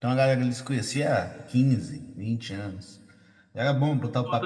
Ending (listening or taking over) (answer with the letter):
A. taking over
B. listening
A